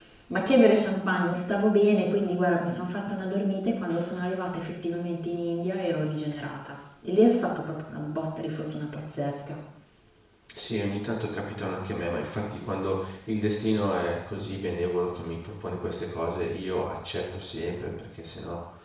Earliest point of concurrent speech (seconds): none

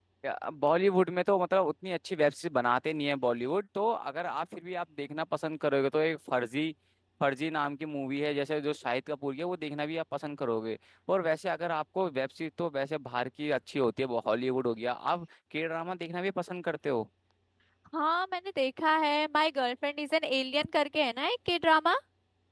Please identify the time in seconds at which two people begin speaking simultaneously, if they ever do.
none

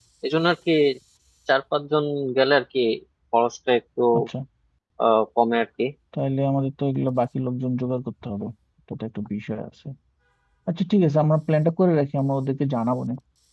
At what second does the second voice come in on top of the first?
none

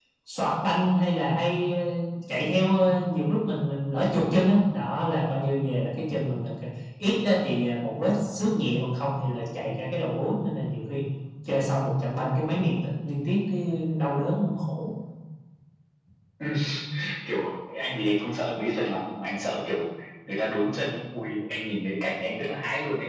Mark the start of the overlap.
none

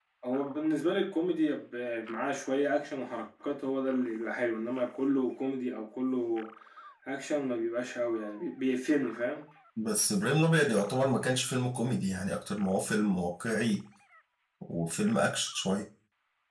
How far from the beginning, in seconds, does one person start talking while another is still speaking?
none

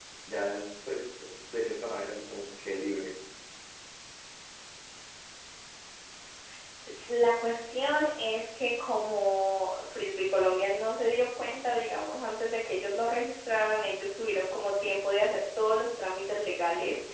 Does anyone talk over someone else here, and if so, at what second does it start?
none

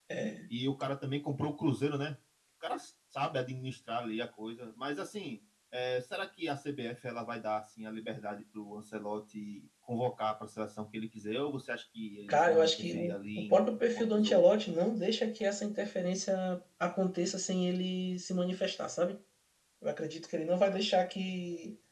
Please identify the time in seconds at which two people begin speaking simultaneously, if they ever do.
12.3 s

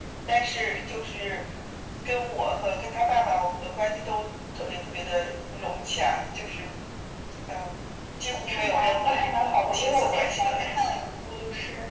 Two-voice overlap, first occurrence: 8.5 s

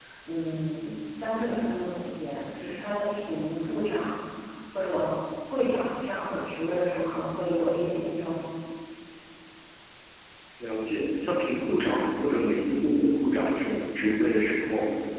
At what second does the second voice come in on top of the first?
none

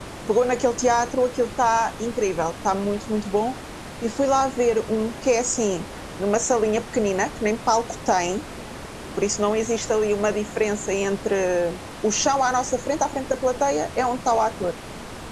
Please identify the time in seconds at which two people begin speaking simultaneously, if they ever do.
none

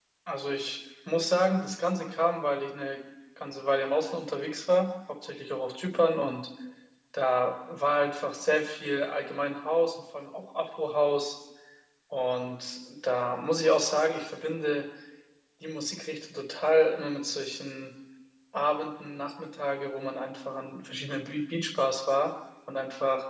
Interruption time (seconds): none

